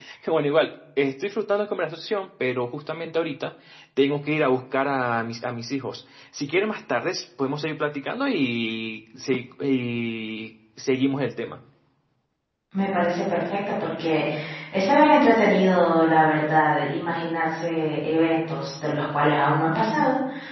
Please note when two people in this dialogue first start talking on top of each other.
none

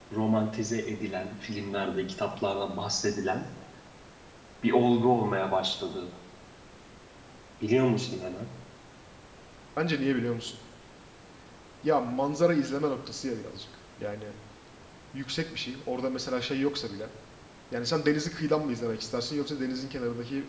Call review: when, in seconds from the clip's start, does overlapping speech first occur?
none

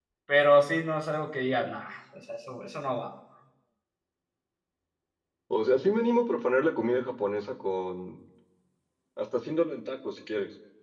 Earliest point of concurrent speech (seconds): none

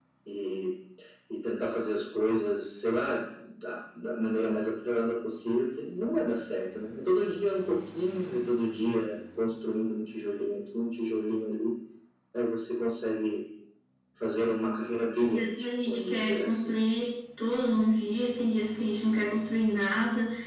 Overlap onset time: 15.2 s

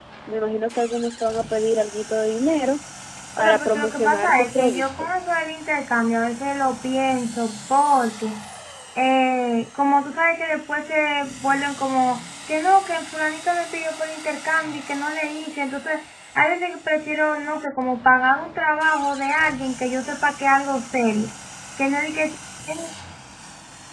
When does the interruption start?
3.4 s

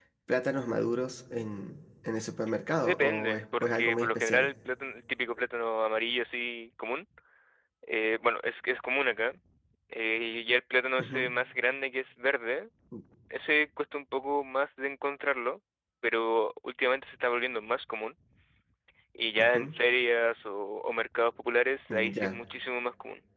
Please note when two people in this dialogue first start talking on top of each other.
2.8 s

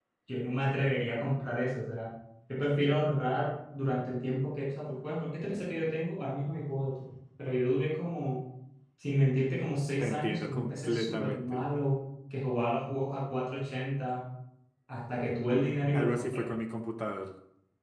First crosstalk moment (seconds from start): 10.0 s

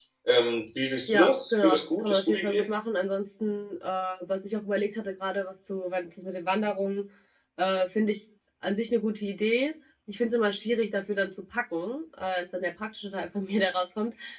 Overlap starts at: 1.1 s

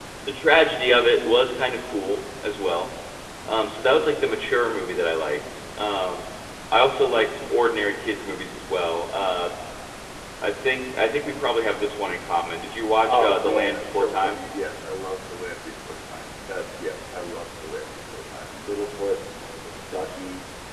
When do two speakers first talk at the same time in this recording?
13.1 s

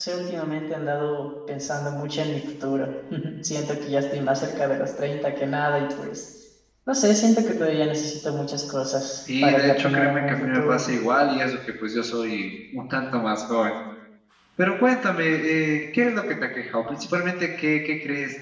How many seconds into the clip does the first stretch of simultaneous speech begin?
9.3 s

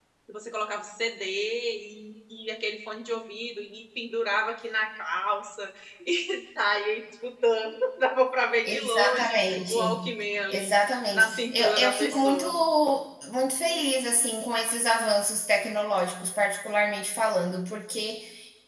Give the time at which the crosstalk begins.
8.7 s

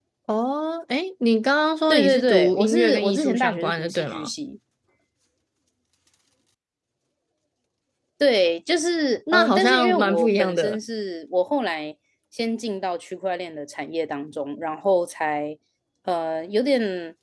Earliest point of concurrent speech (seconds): 1.9 s

